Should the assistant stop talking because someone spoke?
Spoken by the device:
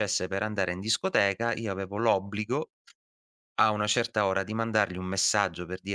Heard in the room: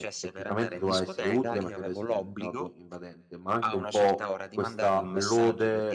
Yes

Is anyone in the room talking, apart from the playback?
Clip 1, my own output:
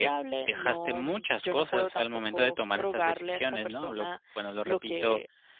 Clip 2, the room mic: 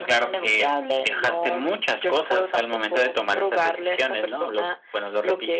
No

